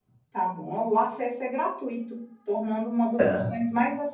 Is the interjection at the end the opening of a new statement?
No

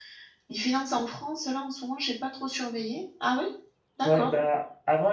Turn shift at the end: Yes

